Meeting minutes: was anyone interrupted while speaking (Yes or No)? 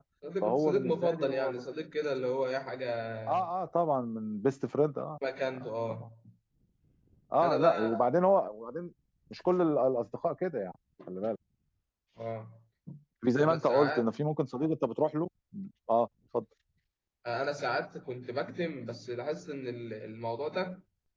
Yes